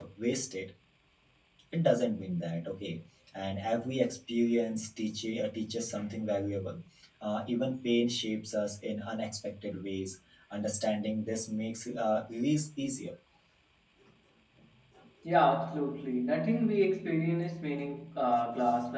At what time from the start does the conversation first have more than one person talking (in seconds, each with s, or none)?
none